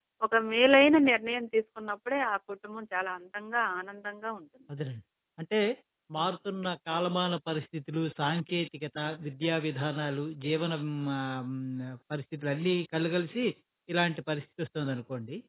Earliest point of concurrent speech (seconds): none

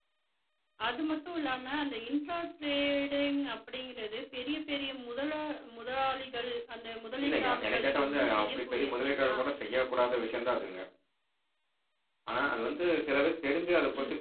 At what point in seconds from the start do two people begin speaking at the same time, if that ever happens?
7.2 s

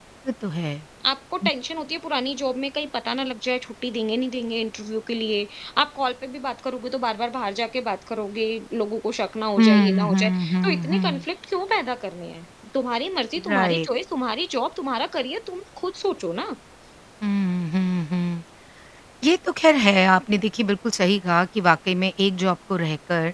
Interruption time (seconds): 9.6 s

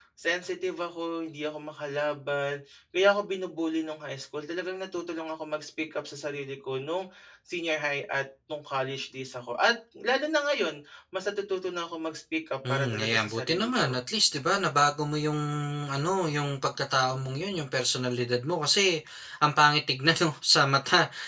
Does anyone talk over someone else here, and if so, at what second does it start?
12.6 s

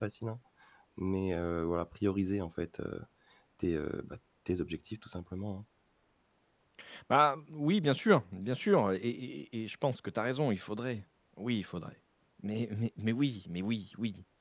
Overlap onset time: none

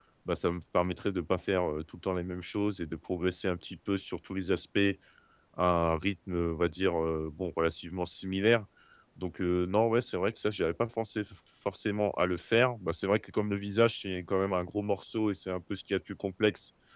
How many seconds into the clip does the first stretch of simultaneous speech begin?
none

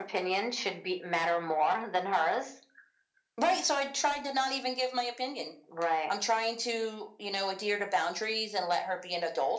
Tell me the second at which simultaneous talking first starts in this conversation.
none

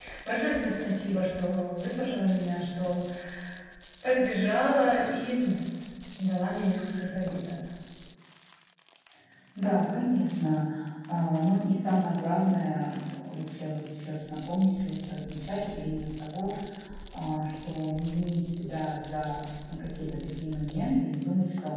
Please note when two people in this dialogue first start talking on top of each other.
none

